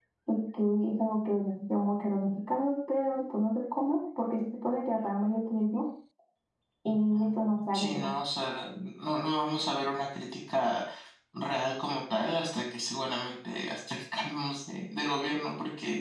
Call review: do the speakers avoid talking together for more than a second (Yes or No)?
No